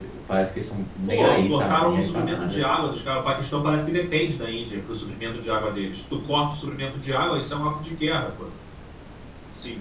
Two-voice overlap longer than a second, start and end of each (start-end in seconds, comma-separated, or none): 1.1-2.6